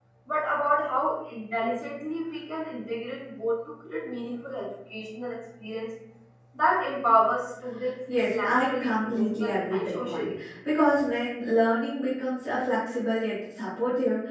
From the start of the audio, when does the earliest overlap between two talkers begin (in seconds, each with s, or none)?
8.1 s